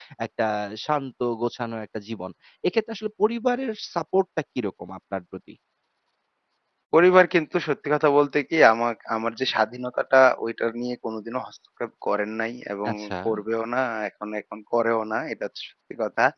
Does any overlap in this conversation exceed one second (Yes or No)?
No